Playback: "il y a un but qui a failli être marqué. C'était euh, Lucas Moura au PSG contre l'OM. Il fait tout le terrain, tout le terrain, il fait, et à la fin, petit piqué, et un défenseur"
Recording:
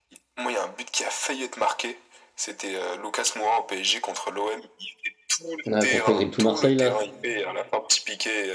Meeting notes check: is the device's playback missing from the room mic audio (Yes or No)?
No